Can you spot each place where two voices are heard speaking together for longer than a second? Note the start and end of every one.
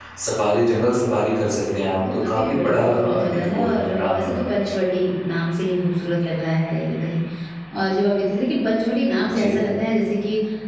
2.0-4.8

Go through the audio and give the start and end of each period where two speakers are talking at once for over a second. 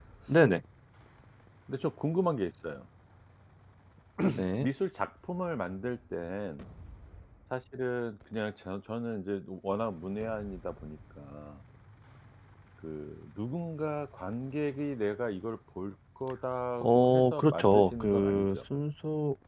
16.8-18.6

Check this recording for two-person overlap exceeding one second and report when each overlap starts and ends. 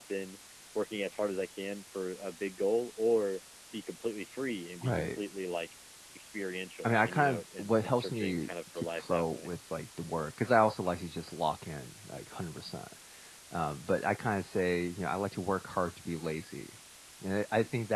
6.8-9.5

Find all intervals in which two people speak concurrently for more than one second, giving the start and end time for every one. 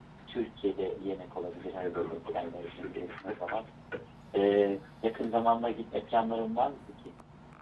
1.8-3.6

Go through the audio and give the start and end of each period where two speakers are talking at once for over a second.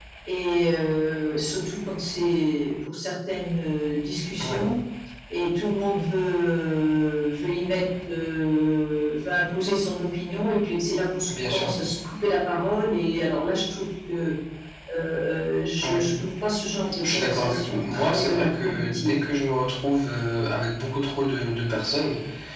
17.0-19.1

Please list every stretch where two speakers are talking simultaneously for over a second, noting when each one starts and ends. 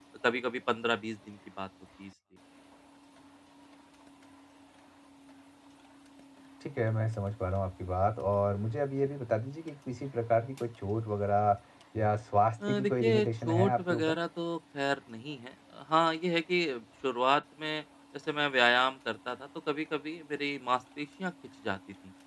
12.7-14.2

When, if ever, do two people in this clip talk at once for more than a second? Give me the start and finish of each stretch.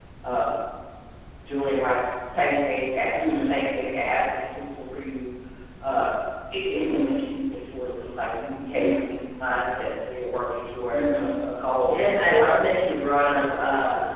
11.8-13.1

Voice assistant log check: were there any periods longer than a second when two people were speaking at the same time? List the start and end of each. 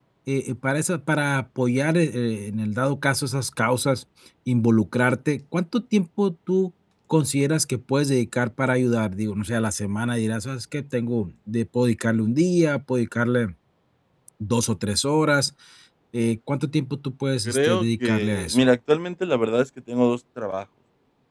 17.4-18.7

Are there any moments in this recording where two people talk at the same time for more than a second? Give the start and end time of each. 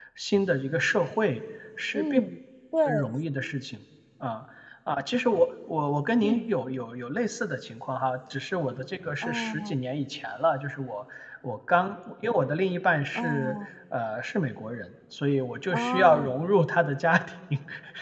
none

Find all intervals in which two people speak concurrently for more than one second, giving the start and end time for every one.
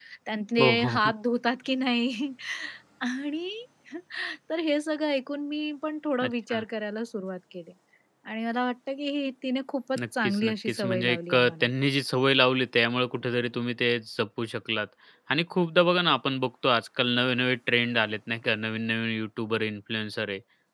10.2-11.7

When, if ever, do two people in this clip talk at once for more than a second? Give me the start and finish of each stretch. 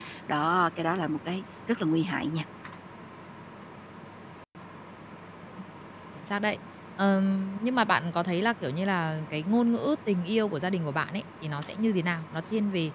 none

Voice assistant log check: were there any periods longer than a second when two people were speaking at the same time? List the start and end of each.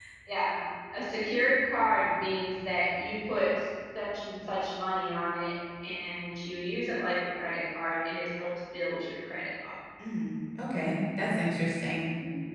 none

